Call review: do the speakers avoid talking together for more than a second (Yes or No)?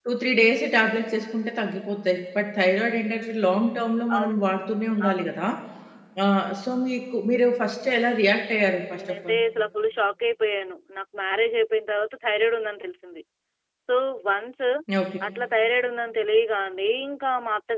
Yes